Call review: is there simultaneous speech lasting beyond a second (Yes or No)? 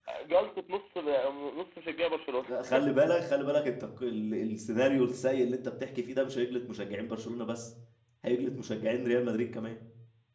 No